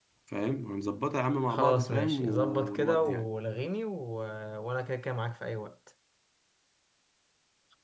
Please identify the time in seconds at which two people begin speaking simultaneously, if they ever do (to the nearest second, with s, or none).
1 s